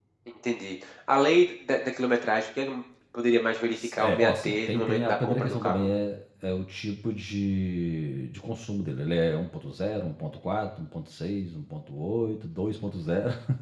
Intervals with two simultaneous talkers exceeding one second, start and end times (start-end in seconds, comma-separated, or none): 4.0-5.9